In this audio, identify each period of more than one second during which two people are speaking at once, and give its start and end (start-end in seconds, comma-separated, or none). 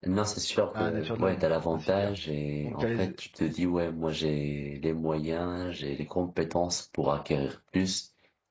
0.7-2.1